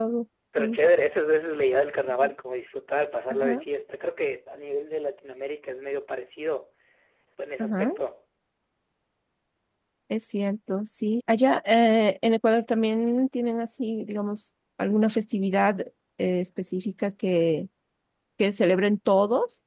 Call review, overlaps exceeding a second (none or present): none